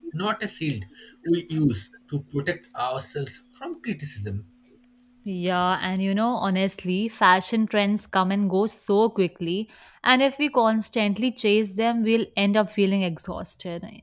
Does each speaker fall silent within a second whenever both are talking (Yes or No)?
Yes